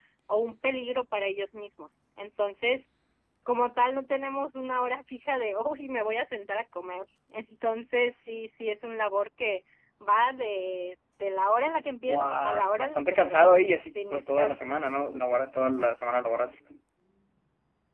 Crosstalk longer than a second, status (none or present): present